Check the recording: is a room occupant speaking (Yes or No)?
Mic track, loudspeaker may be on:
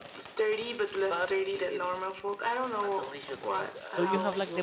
Yes